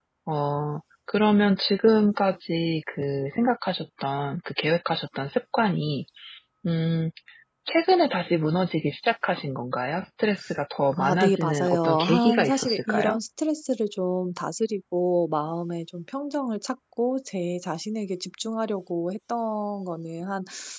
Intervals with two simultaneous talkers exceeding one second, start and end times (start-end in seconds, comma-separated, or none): 11.0-13.2